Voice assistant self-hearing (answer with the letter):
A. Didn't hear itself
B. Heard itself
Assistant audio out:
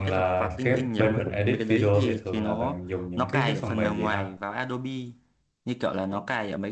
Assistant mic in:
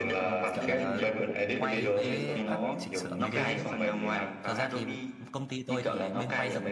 B